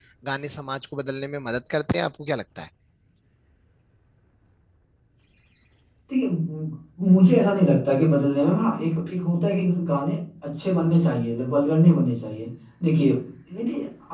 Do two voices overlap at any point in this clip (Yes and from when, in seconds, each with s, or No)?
No